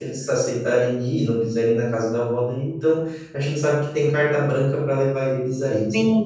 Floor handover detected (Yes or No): Yes